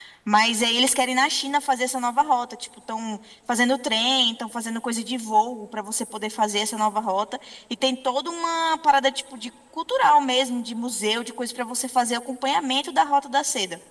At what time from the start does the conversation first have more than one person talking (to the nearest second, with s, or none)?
none